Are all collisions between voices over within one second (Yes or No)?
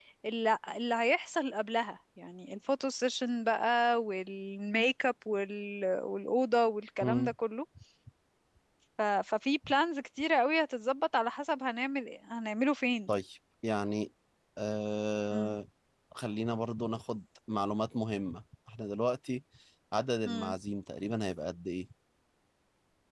Yes